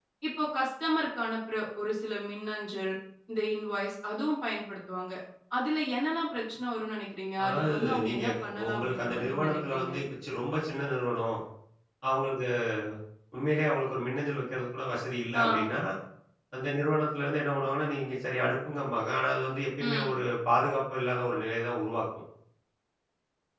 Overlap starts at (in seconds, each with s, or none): 7.4 s